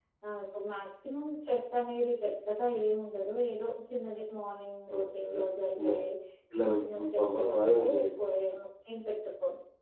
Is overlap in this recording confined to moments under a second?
No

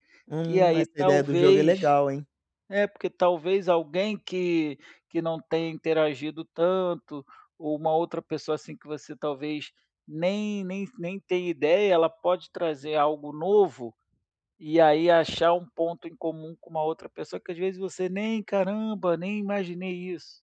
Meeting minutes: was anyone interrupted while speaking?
Yes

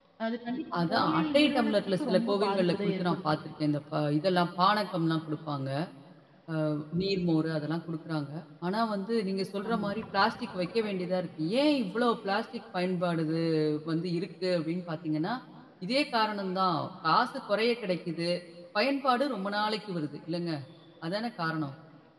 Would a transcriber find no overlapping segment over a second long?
No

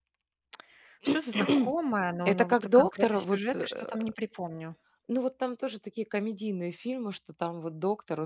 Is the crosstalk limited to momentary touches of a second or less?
No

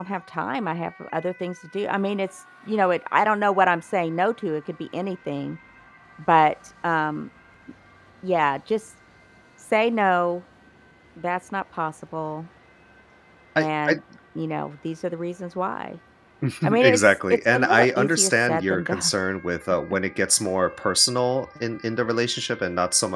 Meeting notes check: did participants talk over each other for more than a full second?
Yes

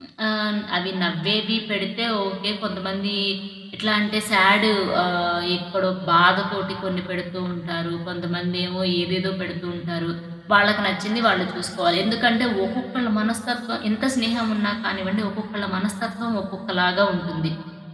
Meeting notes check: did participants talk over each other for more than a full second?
No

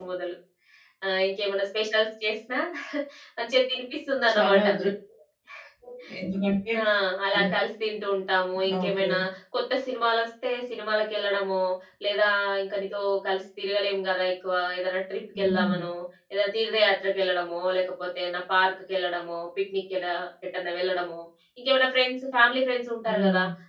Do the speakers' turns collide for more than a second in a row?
No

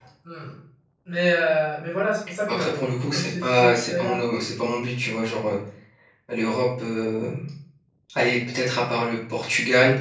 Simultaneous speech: Yes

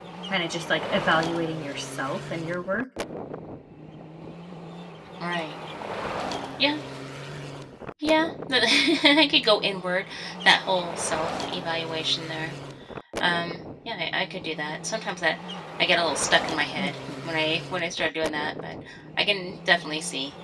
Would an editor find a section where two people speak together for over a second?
No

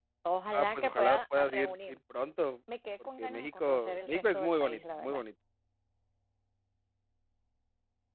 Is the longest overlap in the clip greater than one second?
Yes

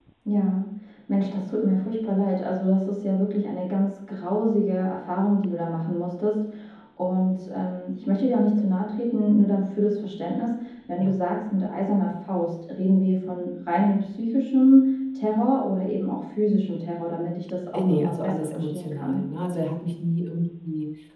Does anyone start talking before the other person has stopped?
Yes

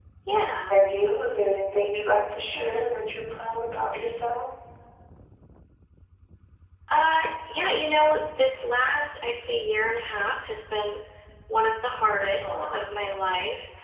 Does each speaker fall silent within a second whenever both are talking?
Yes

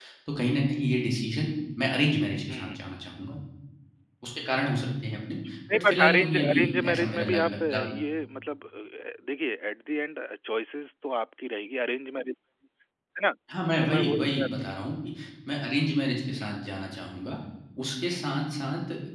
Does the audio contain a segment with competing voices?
Yes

